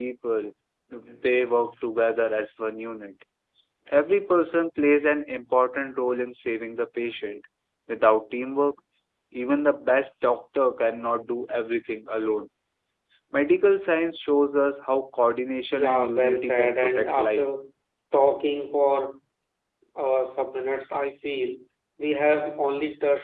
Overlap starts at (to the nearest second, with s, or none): 16 s